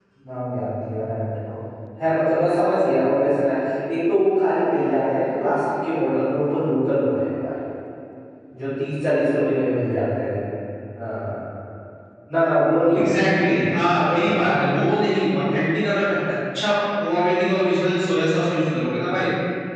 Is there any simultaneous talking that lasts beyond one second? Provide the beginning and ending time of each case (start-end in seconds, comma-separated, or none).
none